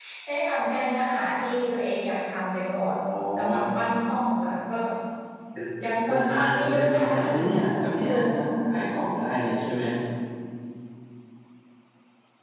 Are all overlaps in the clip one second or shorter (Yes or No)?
No